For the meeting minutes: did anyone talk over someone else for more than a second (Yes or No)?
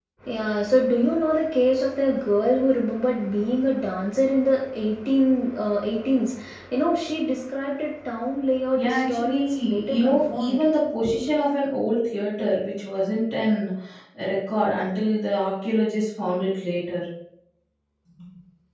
Yes